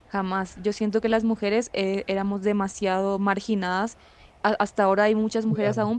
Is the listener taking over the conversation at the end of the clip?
No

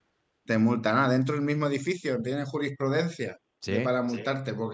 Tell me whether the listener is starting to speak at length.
No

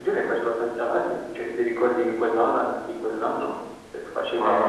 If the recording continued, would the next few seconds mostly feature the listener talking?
No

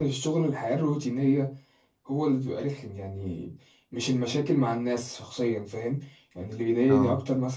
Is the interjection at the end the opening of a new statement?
No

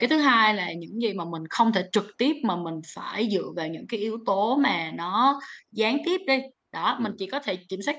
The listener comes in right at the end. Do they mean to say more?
No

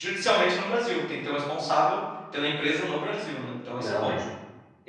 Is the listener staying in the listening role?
No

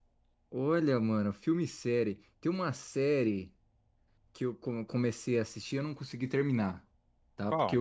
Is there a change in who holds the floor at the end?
No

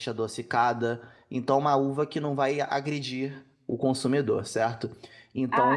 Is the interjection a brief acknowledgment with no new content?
No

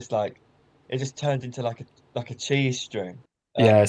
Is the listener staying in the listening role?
Yes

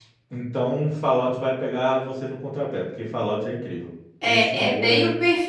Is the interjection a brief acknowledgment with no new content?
No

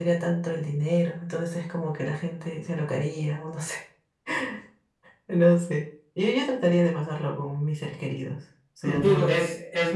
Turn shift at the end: Yes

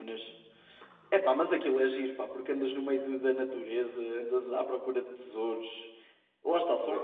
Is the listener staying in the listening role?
Yes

